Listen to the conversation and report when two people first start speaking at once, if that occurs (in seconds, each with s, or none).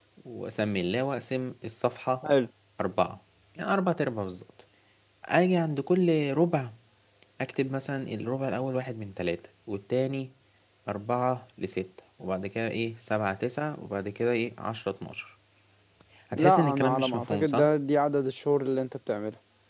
16.3 s